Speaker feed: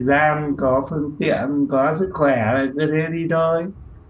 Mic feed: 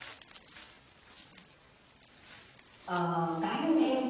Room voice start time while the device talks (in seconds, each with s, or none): 2.8 s